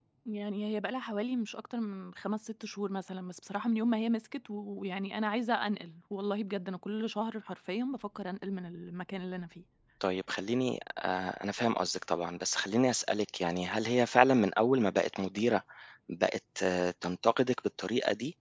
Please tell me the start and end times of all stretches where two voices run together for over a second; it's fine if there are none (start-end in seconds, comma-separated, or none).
none